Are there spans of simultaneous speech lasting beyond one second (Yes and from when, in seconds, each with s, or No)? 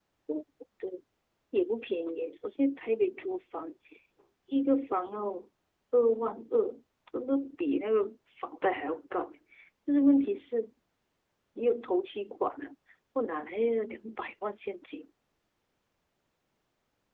No